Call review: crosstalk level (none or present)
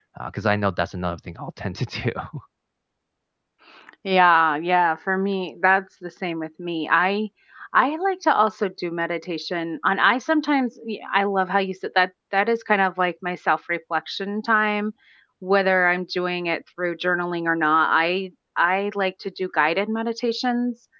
none